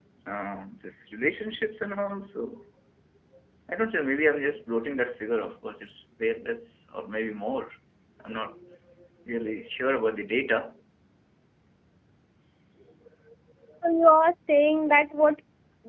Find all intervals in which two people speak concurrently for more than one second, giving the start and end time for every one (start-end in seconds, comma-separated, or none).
none